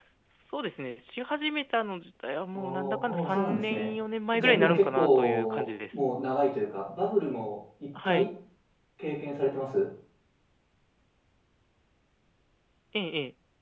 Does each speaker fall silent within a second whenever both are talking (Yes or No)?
No